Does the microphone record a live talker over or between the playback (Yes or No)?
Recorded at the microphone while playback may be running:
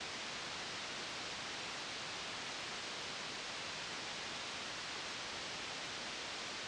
No